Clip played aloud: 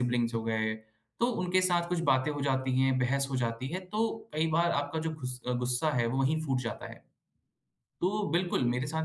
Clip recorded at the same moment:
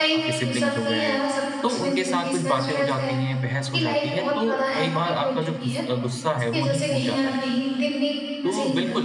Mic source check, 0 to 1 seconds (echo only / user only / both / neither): both